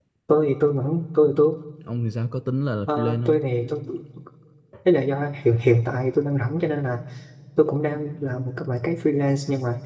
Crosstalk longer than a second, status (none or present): none